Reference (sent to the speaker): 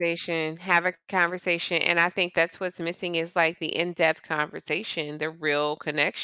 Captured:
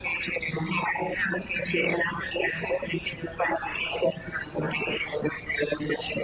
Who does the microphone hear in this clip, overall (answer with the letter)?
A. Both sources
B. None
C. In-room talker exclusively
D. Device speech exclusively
D